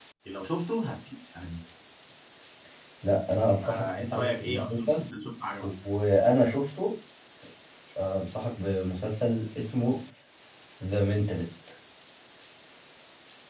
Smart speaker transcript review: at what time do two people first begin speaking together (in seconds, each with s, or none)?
3.6 s